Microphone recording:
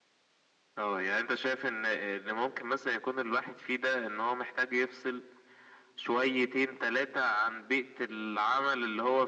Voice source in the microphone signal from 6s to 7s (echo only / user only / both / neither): echo only